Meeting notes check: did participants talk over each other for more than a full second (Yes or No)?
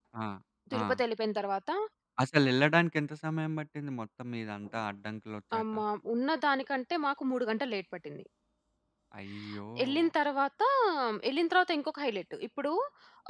No